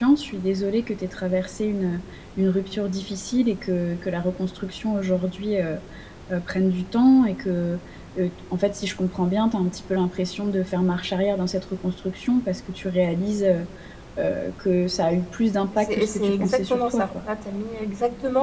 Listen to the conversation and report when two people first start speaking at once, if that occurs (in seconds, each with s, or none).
15.9 s